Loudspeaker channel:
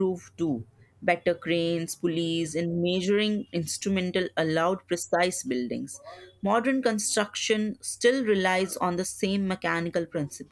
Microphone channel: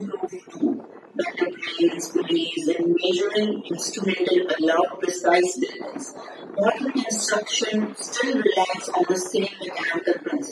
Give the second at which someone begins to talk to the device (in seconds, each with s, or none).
none